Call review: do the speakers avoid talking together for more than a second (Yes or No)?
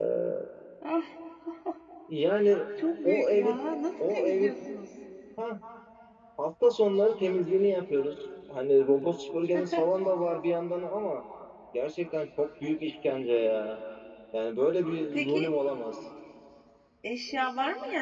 Yes